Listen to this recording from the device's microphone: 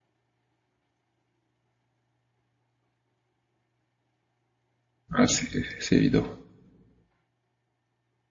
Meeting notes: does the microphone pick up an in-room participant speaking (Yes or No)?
Yes